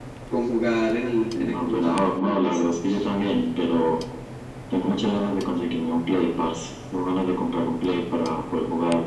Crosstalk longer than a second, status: present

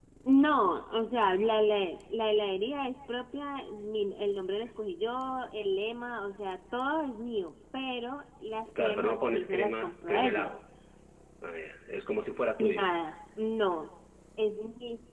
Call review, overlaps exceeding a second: present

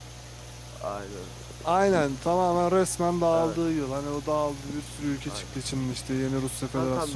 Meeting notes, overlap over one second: none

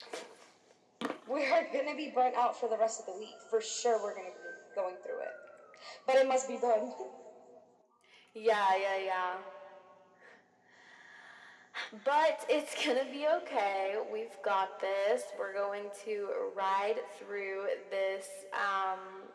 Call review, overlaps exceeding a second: none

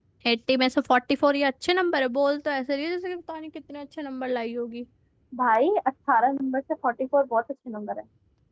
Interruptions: none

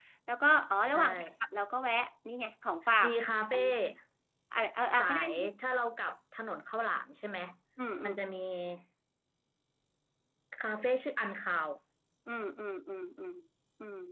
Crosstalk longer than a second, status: none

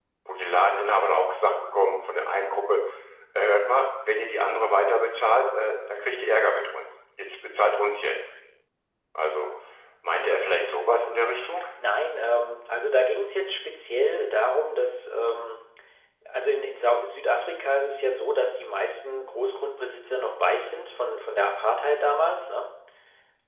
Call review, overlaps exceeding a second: none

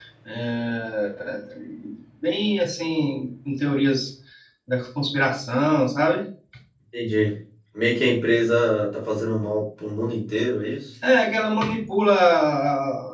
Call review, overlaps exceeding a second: none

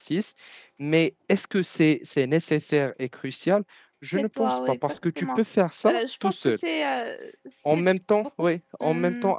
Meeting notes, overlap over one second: present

